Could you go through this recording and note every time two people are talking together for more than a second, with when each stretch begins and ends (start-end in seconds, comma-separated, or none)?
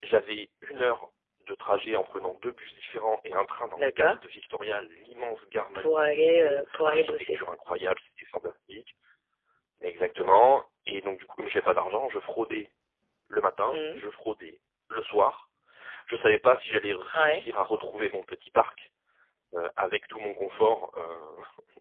5.8-7.4